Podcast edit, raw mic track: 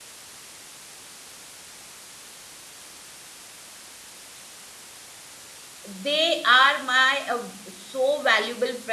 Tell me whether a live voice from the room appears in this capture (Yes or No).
Yes